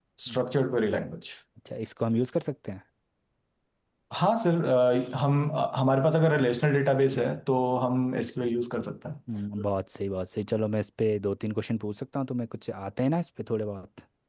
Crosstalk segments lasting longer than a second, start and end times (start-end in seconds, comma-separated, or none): none